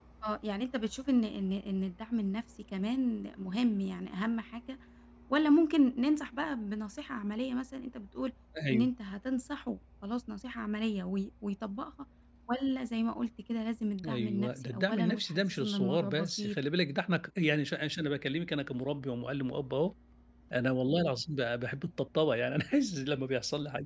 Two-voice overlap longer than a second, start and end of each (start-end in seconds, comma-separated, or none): 14.1-16.6